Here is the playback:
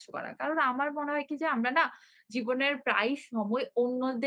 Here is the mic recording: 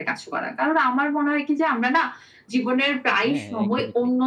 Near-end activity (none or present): present